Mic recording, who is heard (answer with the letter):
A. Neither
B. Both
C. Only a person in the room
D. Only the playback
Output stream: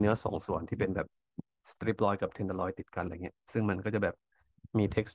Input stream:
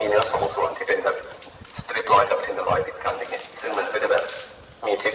D